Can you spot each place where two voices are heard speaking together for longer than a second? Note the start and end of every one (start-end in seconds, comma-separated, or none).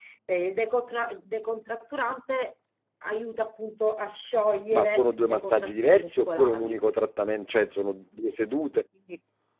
4.7-6.8